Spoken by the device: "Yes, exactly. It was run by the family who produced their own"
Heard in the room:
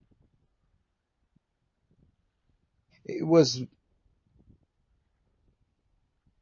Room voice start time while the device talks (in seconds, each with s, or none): 3.0 s